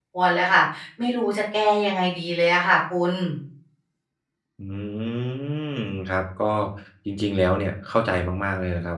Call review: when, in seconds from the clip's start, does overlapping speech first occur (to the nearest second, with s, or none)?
none